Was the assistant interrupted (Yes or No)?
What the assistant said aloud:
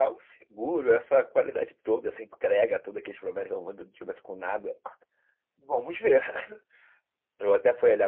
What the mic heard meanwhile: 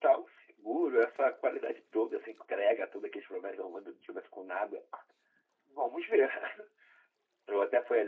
No